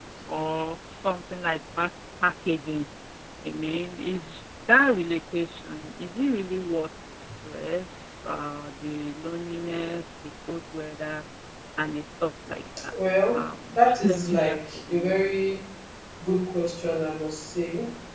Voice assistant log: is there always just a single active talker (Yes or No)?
No